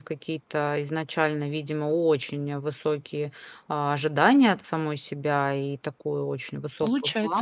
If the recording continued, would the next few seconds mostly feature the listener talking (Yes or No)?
No